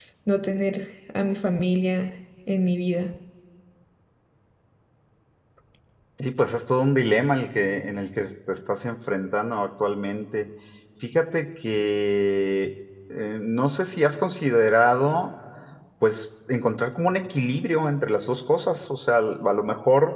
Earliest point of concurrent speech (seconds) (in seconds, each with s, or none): none